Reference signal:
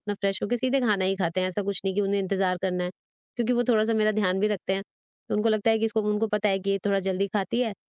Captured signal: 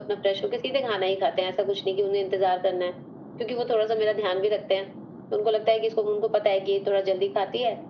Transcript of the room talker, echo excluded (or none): none